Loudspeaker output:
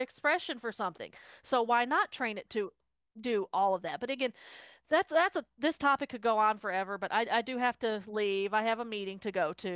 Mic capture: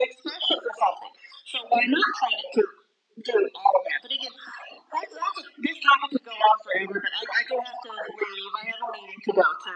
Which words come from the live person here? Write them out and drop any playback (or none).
none